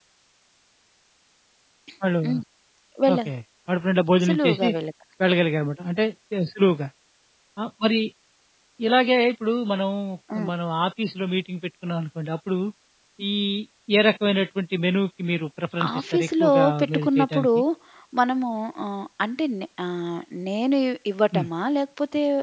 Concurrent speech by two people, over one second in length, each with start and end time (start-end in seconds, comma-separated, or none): 16.0-17.5